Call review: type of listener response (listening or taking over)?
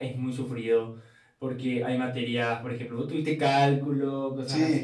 listening